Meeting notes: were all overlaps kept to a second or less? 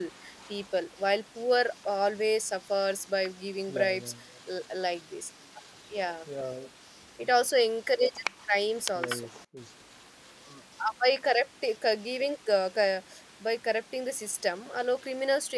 Yes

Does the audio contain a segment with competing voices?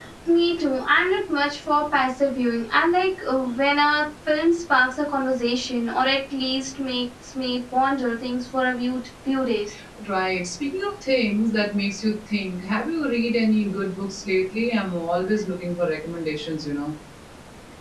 No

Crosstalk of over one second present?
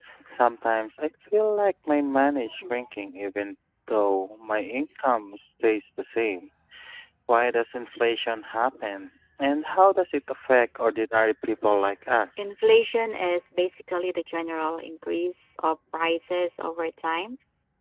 No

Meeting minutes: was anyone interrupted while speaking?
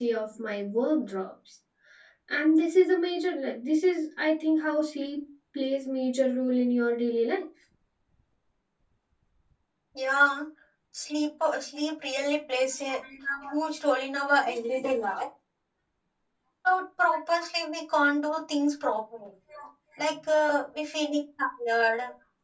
No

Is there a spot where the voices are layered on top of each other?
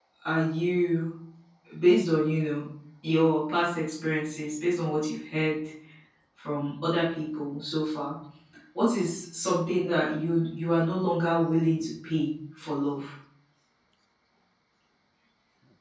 No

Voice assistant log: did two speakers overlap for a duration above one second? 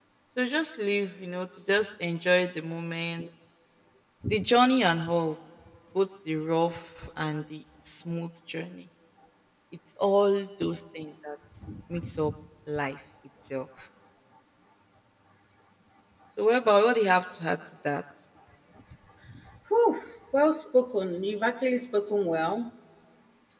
No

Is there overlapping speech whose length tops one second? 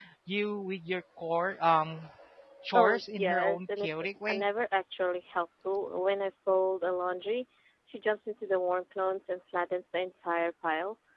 Yes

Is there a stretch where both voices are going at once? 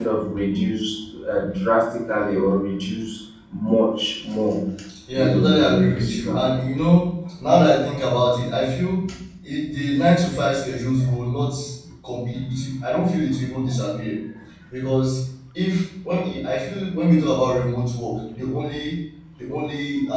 Yes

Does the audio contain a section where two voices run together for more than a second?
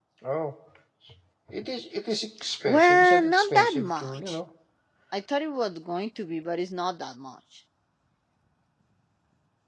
Yes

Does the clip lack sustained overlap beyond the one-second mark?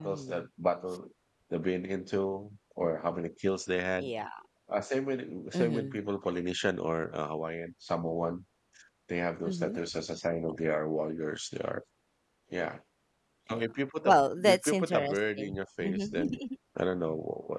No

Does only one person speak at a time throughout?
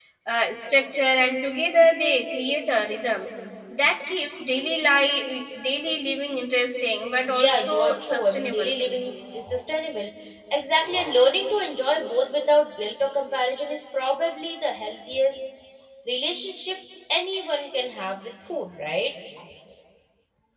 No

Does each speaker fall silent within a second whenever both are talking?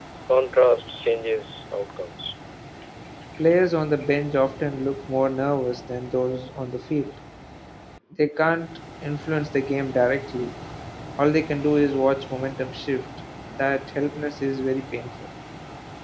Yes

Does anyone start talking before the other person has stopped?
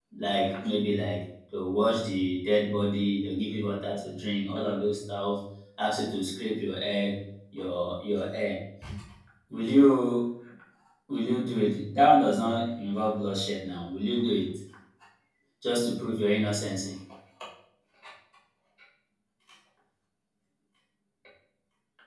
No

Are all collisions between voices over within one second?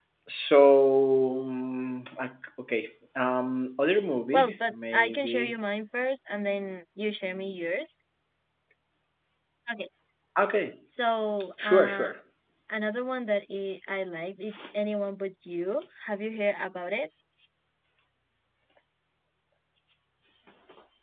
No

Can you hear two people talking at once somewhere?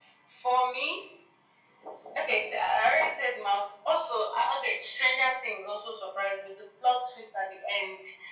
No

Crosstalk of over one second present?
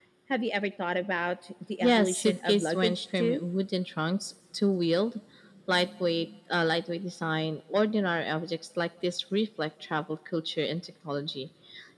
Yes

